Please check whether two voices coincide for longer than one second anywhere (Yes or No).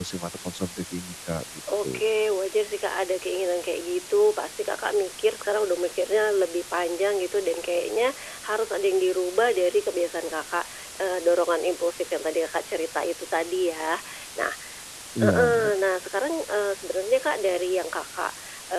No